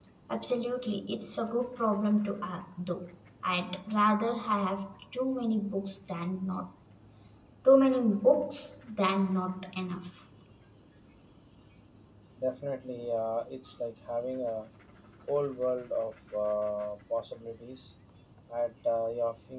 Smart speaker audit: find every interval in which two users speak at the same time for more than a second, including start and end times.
none

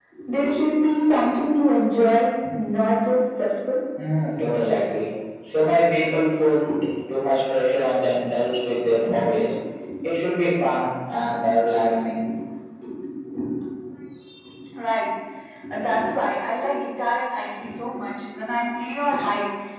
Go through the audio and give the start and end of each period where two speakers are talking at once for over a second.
none

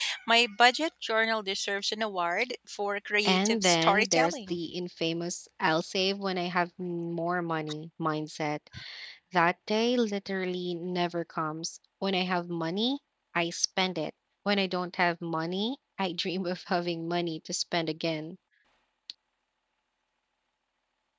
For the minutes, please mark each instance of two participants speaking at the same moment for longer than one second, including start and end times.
3.2-4.6

